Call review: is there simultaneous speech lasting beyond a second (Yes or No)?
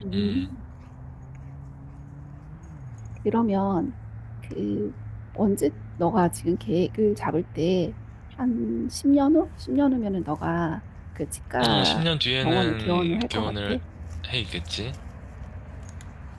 Yes